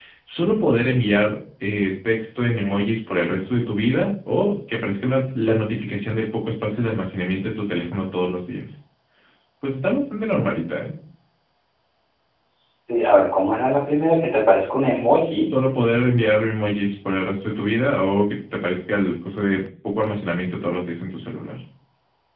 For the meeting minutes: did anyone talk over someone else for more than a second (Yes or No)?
No